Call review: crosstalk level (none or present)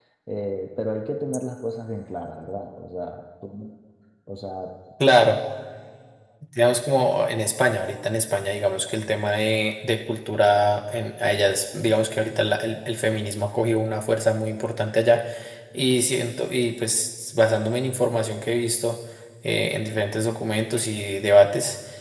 none